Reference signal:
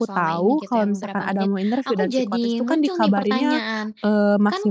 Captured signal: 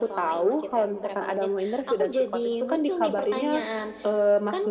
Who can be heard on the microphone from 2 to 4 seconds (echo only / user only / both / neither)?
echo only